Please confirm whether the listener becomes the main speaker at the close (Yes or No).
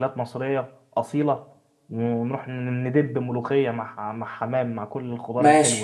Yes